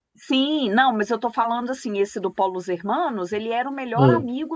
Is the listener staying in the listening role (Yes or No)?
Yes